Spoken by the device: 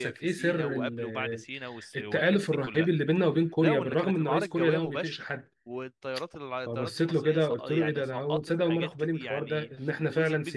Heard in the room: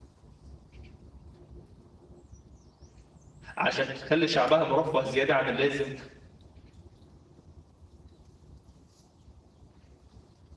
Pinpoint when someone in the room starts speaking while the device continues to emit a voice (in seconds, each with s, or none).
3.6 s